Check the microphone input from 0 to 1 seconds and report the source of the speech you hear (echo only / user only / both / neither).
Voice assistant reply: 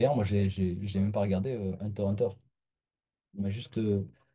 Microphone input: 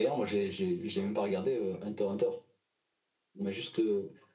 echo only